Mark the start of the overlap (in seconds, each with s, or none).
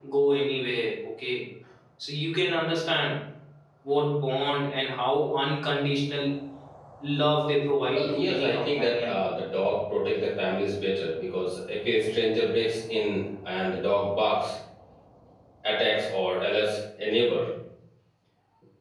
7.9 s